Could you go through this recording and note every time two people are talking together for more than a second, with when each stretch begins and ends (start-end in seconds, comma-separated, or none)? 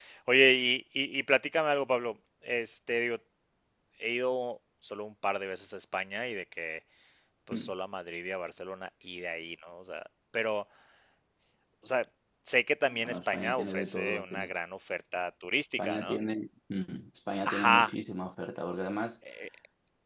12.9-14.5